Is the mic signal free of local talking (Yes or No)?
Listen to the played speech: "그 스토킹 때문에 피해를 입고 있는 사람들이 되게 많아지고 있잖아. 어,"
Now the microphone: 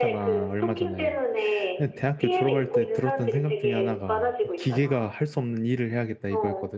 No